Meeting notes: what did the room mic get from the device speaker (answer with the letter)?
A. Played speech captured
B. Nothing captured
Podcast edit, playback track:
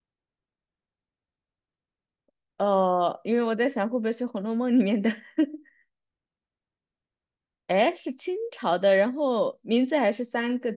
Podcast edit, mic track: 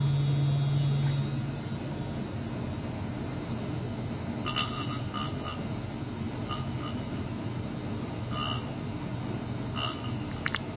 B